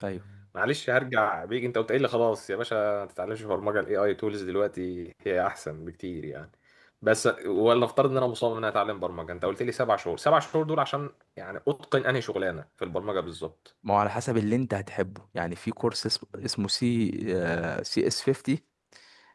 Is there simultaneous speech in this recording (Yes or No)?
No